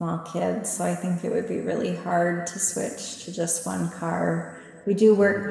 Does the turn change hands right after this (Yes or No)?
No